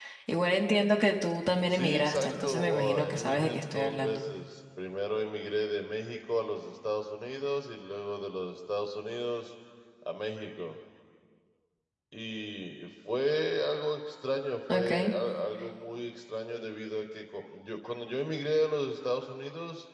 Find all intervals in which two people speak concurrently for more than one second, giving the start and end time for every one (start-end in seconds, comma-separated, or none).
1.7-4.2